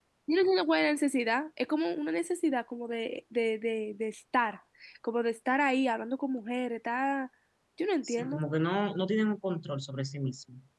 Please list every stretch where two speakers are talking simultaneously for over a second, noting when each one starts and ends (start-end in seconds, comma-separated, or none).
none